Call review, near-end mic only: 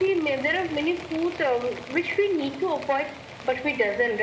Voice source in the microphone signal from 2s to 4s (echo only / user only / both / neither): echo only